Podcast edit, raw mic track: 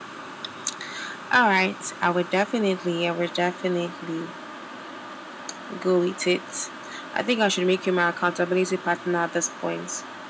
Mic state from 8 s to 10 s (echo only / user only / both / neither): echo only